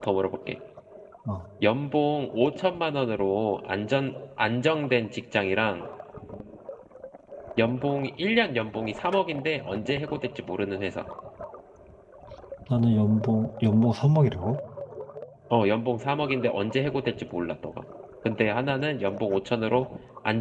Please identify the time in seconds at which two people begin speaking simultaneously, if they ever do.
none

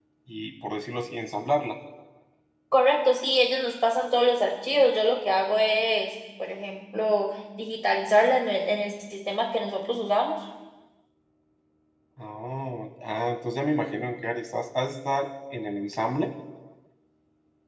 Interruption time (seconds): none

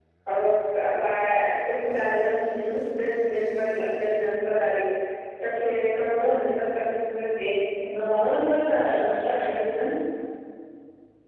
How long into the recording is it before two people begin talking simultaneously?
none

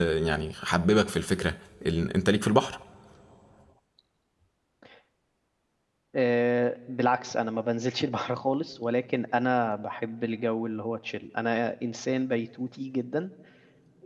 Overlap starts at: none

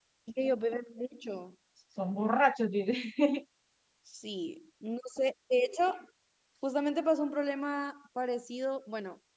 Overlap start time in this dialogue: none

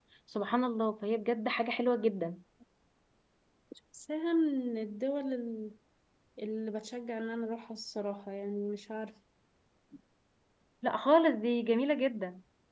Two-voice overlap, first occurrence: none

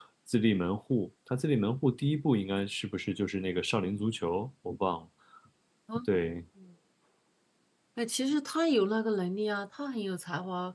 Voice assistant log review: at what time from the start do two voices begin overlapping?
none

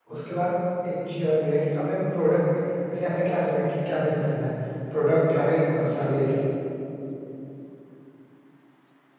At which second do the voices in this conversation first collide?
none

